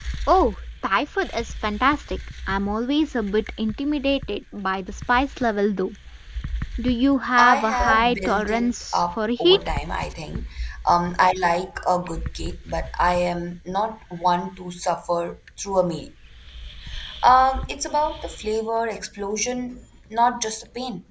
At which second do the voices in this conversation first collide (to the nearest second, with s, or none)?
7 s